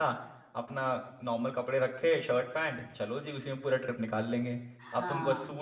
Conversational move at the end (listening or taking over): listening